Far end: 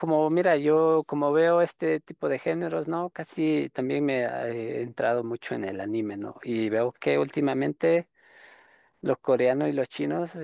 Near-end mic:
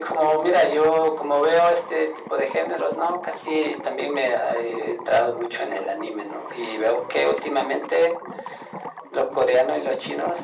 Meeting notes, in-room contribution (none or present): none